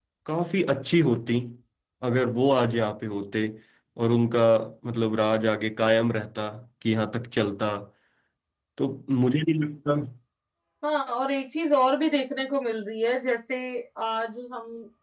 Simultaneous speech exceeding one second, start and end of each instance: none

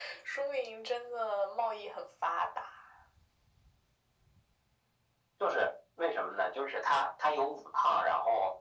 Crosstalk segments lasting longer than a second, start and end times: none

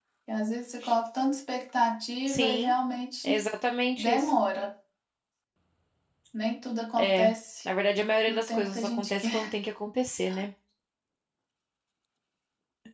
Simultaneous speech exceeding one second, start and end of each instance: 8.3-9.5

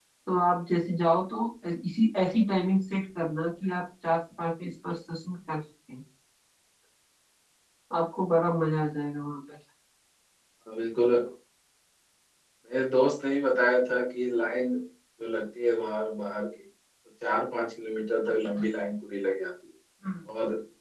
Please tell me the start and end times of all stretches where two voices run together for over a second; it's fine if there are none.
none

